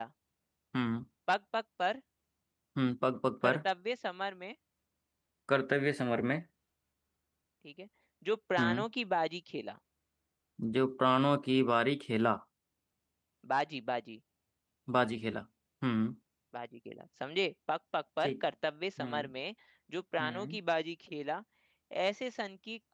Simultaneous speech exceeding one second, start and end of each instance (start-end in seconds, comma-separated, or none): none